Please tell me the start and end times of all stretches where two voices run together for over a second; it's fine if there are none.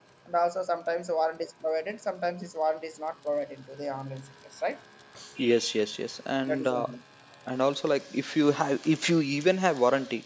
none

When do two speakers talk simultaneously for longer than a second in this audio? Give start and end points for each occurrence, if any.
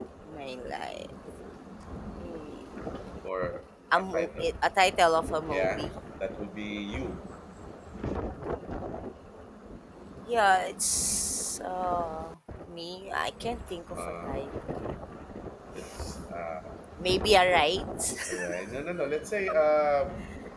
none

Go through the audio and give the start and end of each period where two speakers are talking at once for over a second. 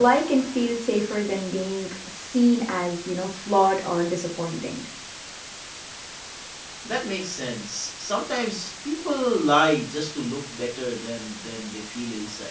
none

